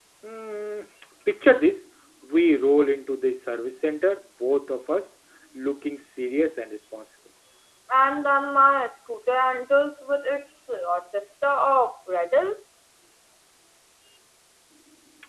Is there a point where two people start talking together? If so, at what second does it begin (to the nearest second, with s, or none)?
none